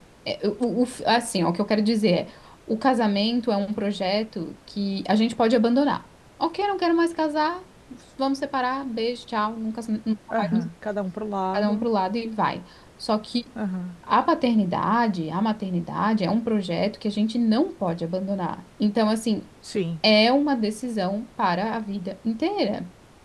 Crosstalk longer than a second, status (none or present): none